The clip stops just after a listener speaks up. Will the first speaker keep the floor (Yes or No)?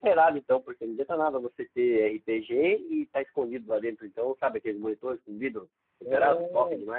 No